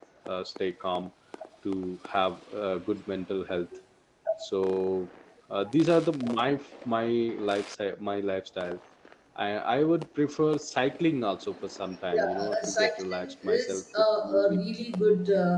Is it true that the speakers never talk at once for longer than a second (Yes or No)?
No